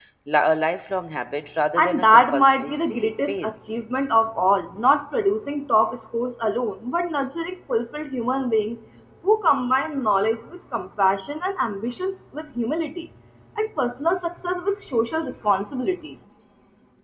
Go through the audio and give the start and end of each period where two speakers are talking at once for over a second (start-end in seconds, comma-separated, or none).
1.8-3.5